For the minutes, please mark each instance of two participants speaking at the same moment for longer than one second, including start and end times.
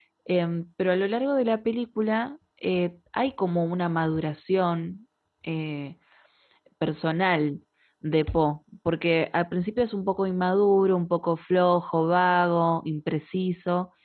none

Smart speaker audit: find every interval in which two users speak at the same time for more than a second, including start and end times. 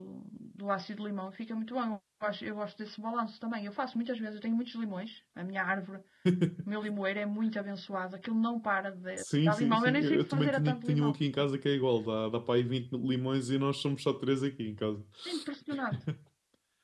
9.2-11.1

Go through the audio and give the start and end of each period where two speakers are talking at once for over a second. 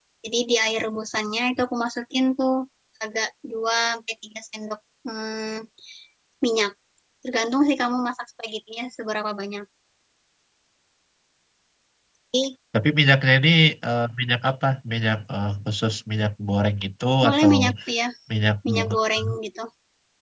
none

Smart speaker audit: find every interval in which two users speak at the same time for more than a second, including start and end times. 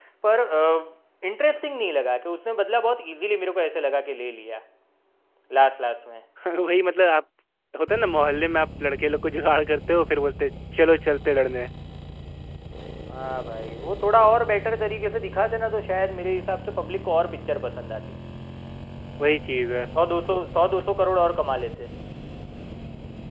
none

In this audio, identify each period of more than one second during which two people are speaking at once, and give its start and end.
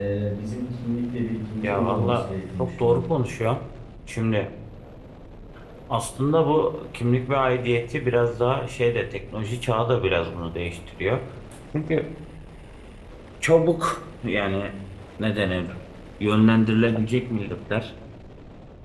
1.6-3.0

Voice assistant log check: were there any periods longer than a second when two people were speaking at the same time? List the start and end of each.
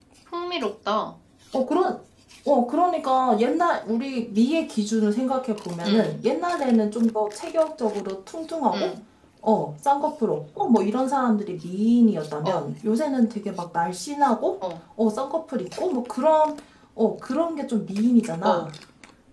none

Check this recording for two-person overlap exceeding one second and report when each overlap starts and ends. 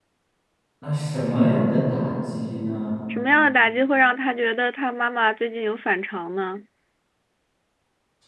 none

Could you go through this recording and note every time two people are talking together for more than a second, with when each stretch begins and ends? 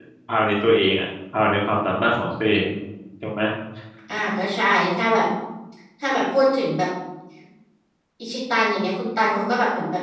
none

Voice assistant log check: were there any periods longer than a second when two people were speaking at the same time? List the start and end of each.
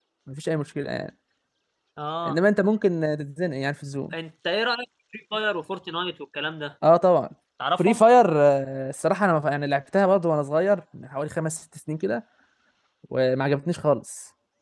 none

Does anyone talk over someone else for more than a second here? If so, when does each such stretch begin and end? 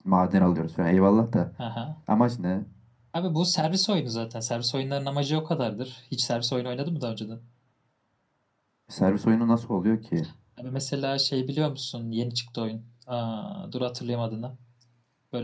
none

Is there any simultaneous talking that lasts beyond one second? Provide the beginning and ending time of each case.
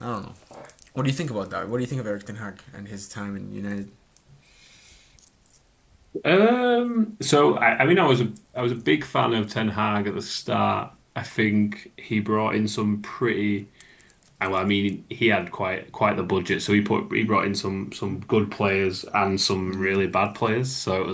none

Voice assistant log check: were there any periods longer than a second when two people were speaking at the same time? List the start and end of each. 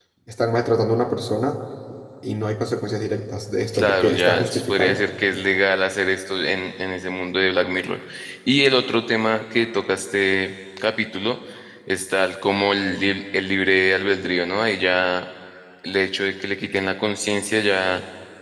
3.7-5.0

